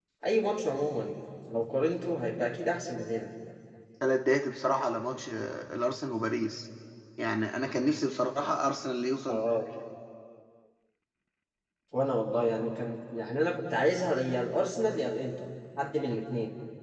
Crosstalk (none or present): none